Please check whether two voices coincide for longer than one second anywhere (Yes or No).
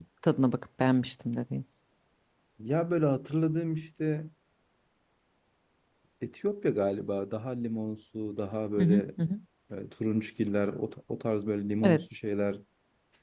No